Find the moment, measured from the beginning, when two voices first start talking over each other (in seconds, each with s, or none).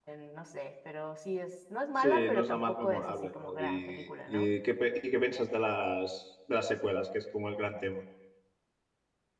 2.0 s